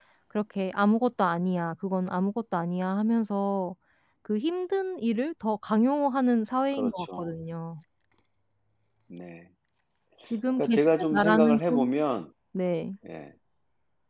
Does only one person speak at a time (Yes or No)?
No